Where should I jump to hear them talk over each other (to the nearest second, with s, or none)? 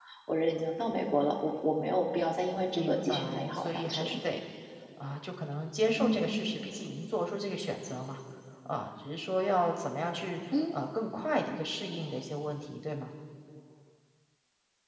3 s